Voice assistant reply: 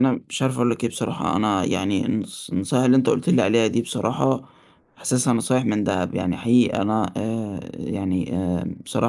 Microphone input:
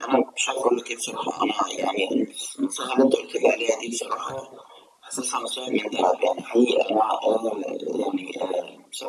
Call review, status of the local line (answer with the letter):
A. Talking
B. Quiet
B